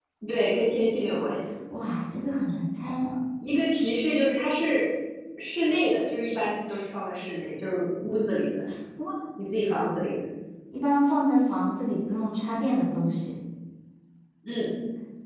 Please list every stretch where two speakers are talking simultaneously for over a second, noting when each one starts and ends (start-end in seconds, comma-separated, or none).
none